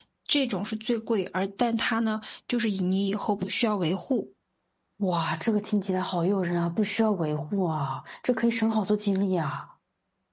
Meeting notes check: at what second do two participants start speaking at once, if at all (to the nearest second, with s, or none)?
none